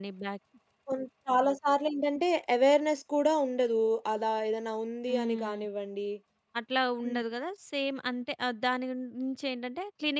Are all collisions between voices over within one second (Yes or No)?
Yes